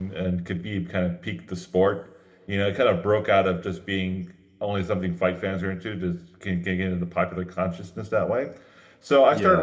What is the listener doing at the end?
listening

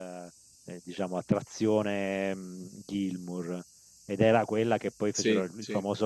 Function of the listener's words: listening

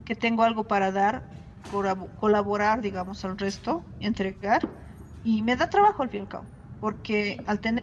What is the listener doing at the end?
listening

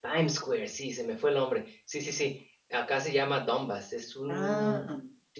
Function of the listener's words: listening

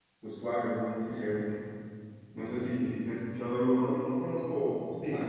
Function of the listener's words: listening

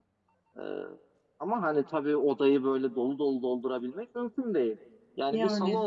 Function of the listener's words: listening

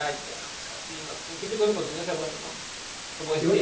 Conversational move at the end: taking over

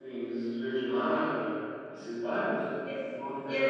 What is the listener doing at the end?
taking over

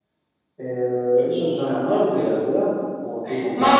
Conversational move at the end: taking over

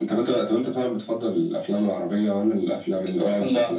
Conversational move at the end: taking over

